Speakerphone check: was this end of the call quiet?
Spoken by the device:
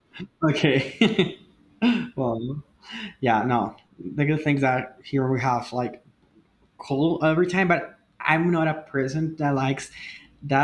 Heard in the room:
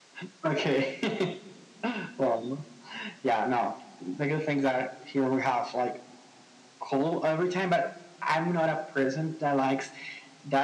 Yes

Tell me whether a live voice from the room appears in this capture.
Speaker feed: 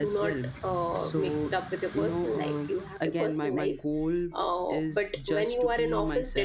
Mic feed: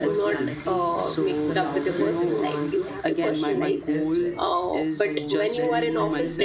Yes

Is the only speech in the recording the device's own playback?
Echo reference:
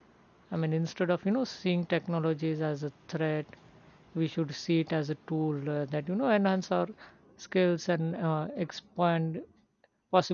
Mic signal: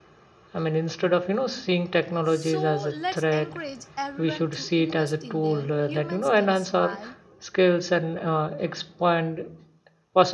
No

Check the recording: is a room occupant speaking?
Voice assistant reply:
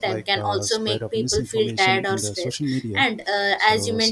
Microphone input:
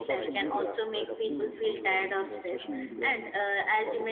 Yes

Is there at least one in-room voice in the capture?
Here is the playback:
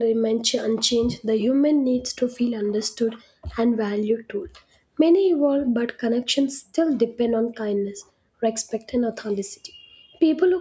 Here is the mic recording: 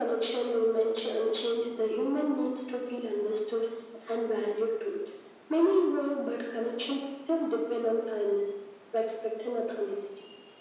No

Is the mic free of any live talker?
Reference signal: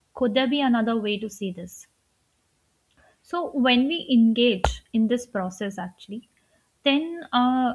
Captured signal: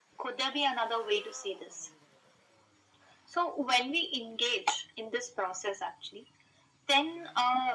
Yes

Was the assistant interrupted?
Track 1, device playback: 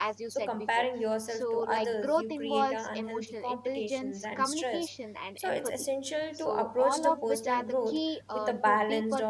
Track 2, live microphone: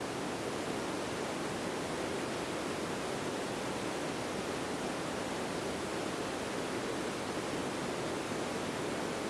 No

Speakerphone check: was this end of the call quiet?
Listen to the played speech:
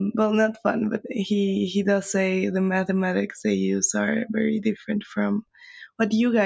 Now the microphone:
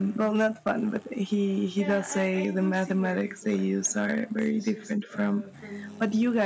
No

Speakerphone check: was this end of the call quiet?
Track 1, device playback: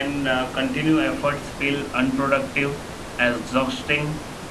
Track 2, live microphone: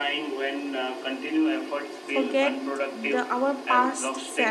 No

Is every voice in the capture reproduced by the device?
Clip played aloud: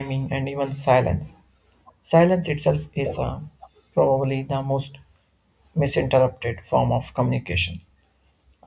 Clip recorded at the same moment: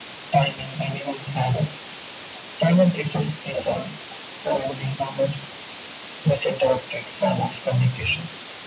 Yes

